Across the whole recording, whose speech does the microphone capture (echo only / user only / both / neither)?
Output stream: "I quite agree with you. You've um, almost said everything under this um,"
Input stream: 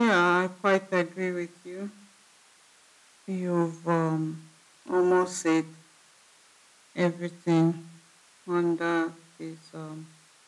echo only